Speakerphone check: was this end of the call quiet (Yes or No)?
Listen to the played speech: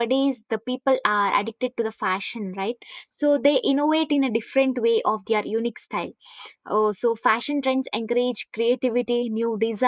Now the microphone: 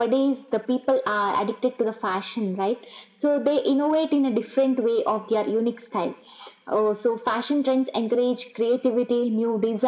Yes